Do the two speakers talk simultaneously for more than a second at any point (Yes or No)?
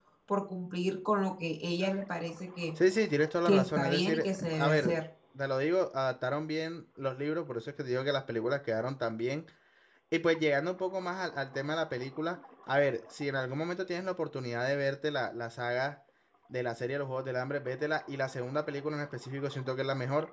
Yes